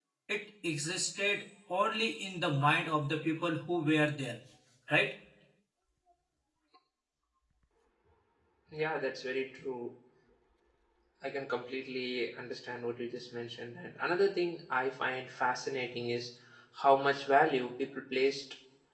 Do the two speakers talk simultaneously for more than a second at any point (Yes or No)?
No